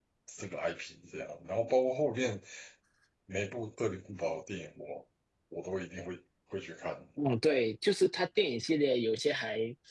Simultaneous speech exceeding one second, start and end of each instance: none

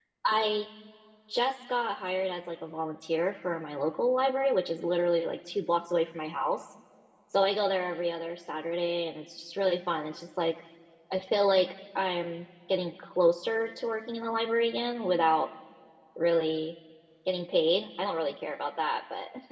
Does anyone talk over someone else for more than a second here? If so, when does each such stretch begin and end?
none

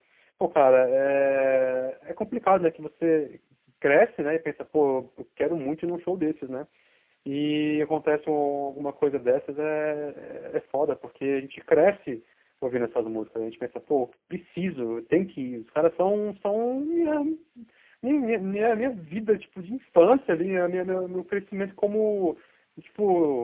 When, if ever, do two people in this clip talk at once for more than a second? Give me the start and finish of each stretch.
none

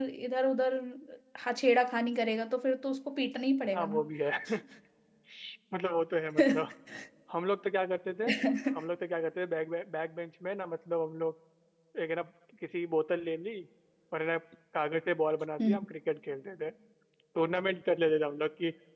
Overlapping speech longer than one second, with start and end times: none

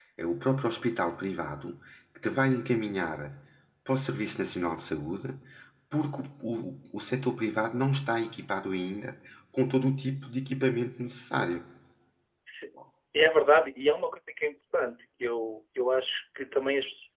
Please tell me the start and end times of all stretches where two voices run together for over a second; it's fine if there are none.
none

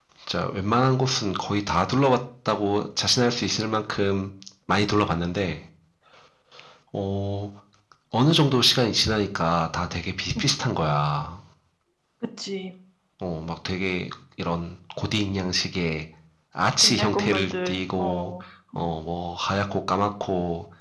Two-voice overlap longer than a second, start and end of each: 16.8-18.3

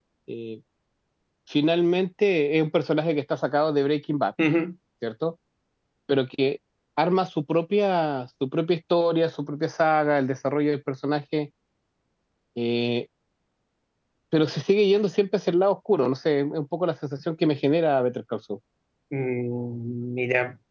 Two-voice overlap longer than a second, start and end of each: none

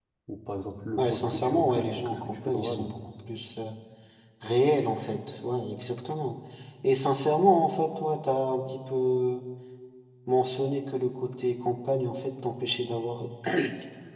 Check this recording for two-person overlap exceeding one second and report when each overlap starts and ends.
1.0-2.9

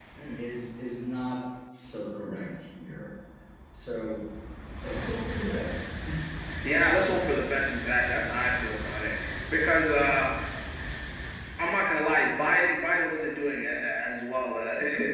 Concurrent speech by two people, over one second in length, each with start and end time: none

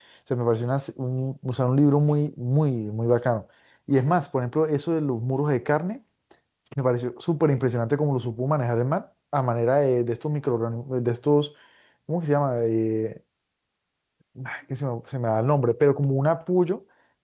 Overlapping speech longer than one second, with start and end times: none

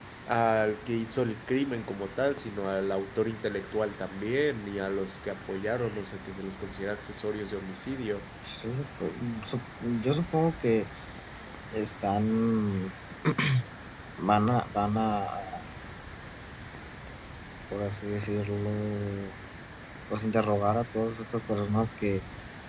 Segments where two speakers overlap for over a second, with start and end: none

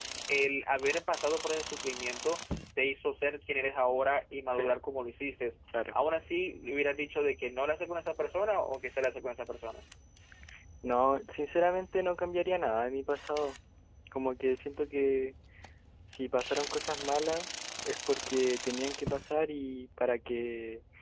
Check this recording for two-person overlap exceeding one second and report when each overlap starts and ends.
none

